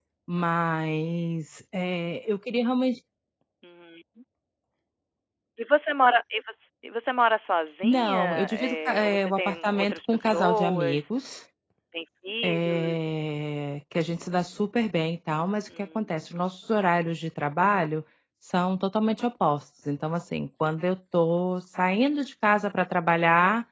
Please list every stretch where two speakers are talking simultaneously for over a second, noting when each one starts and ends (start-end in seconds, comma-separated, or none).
7.8-11.0